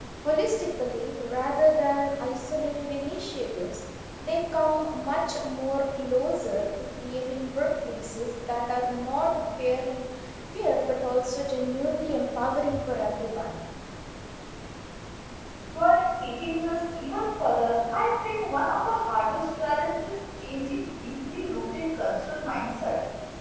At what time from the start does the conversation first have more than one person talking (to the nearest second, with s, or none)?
none